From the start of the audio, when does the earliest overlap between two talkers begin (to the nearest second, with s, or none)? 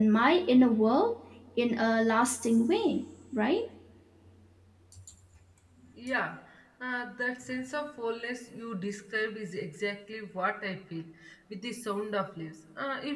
none